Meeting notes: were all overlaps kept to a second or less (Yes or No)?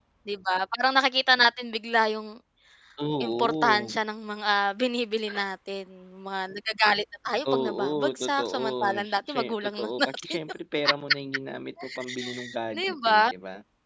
No